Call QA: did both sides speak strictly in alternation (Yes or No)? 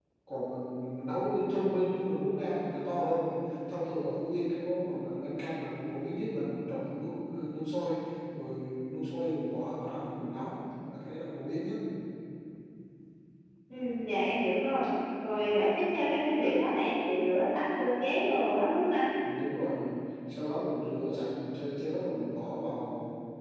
Yes